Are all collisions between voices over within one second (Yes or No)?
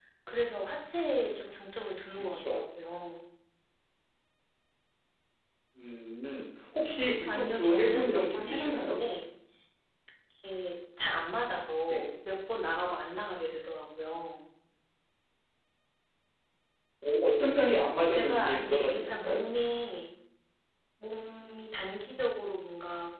No